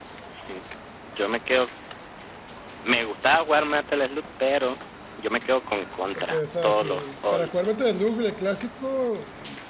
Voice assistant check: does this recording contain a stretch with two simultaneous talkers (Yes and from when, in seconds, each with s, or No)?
Yes, from 6.2 s